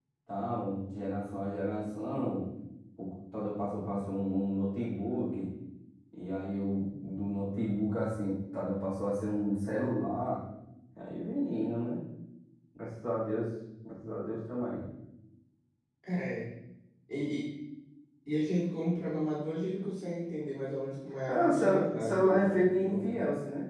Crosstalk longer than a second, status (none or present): present